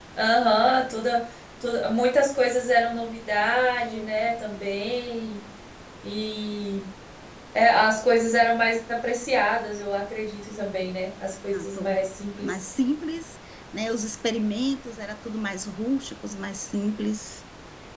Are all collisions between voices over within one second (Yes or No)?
Yes